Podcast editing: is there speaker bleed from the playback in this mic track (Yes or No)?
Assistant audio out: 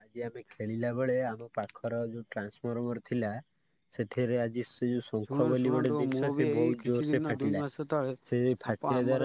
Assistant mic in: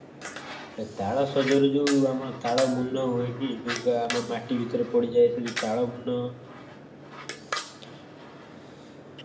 No